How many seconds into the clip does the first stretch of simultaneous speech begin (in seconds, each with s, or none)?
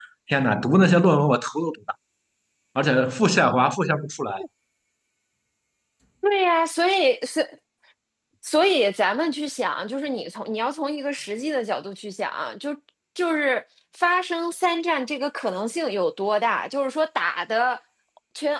none